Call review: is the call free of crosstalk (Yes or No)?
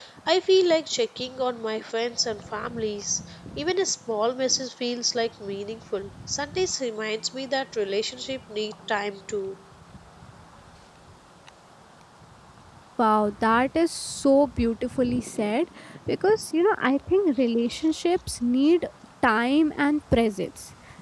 Yes